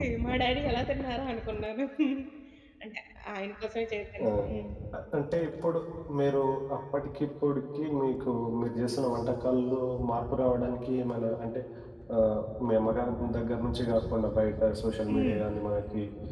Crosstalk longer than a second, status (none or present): none